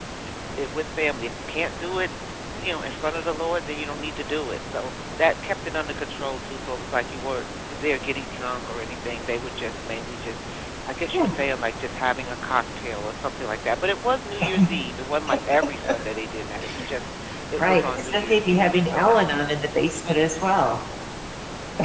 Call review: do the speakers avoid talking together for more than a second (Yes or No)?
No